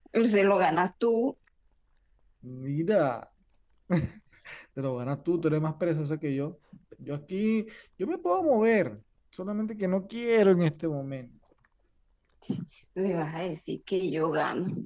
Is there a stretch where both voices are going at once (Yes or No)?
No